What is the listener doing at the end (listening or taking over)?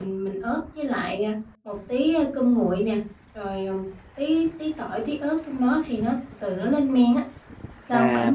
taking over